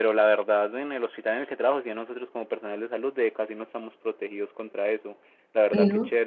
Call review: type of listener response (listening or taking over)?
listening